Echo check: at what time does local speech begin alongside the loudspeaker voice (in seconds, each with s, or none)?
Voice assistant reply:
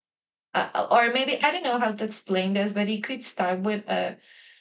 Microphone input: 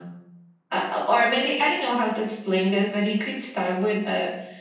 none